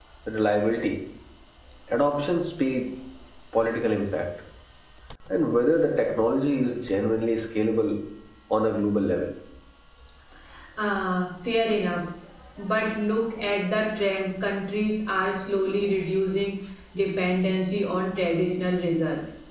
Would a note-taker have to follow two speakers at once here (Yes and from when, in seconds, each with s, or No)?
No